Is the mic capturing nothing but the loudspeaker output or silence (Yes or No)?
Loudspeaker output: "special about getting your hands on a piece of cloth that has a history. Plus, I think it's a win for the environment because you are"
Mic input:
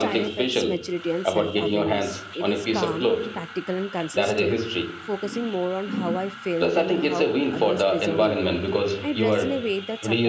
No